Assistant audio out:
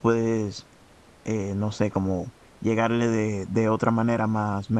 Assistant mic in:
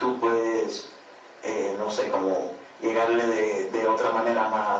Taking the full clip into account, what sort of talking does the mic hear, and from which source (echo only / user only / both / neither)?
echo only